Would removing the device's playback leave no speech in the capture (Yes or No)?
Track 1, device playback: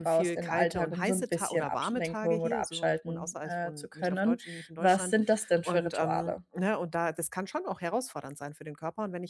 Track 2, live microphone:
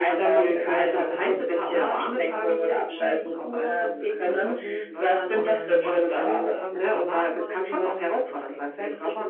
No